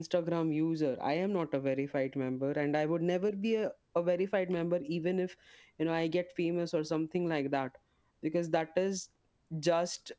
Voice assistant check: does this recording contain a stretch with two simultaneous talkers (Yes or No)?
No